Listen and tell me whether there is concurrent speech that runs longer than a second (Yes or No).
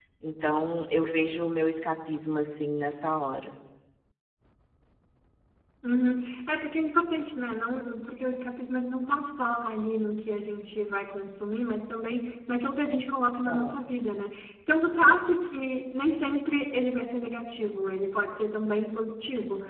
No